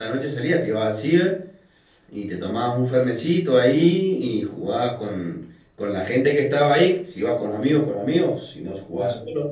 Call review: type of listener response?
taking over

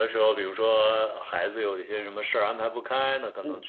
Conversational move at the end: listening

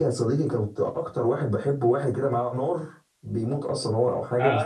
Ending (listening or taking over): taking over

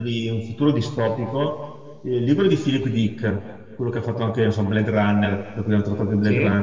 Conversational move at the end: listening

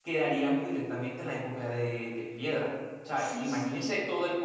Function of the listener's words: listening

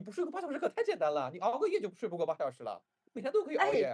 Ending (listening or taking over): taking over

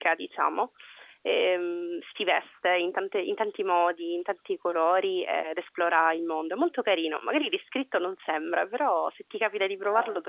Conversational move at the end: taking over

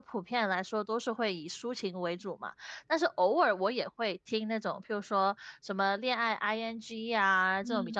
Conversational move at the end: listening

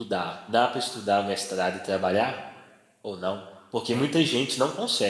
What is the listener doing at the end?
listening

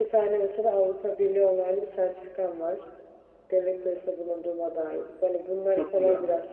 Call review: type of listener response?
listening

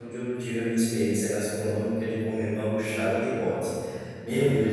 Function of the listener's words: listening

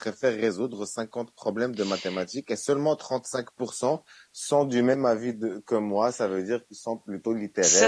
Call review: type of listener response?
taking over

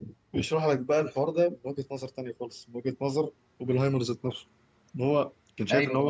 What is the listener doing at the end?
listening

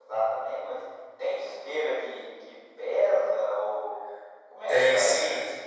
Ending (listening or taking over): taking over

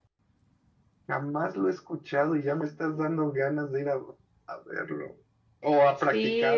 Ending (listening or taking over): taking over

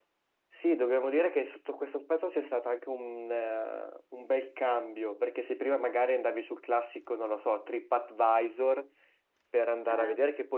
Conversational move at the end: listening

